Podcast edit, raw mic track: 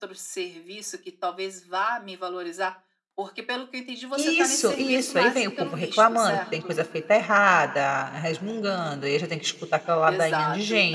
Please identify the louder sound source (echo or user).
user